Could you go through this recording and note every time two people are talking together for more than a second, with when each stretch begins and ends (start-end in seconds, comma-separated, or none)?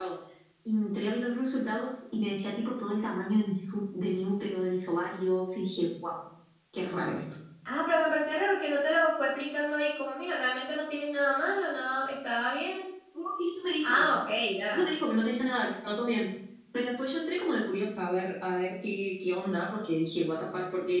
none